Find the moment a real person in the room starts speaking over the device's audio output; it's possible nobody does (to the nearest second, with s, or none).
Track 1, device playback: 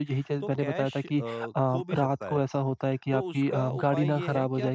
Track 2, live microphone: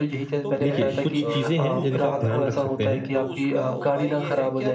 1 s